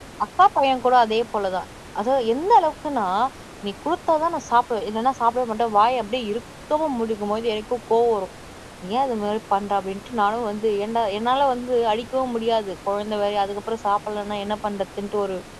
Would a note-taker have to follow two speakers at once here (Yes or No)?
No